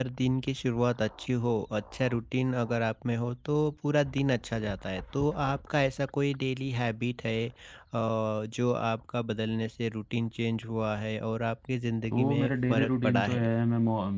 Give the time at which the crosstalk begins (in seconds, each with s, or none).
12.1 s